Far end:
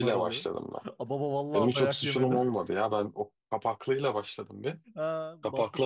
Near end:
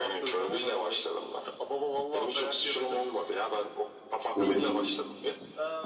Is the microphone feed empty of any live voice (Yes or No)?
No